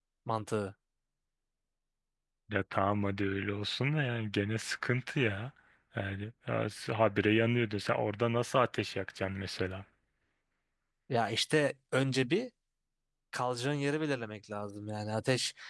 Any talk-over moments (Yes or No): No